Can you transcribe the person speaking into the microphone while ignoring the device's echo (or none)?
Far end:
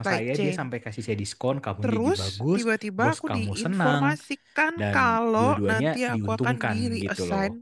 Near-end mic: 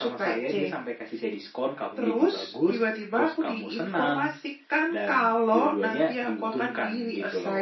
none